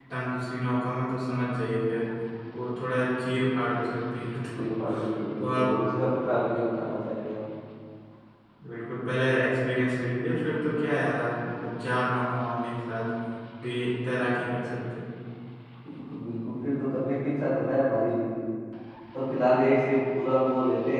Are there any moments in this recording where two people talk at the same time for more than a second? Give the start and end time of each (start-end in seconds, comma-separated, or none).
none